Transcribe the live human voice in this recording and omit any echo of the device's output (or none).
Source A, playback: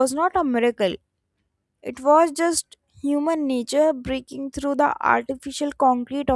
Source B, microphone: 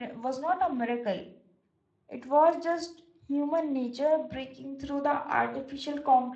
none